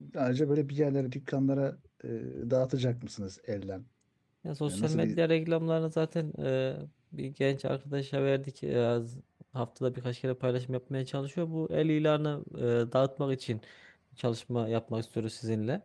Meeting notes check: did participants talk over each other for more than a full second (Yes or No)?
No